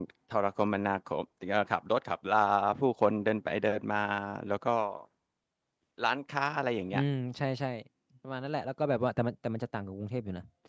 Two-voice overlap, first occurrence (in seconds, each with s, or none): none